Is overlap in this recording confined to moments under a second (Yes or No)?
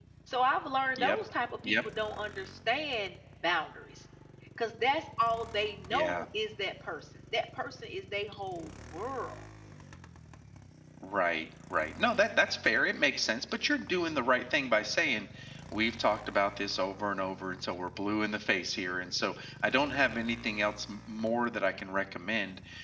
Yes